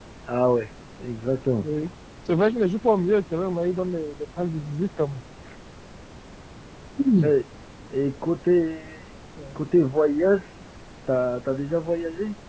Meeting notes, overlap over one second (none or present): none